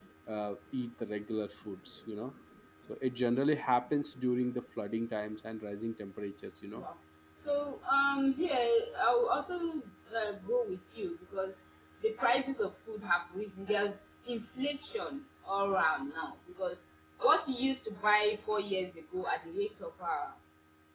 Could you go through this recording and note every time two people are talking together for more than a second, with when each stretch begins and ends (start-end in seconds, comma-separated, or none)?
none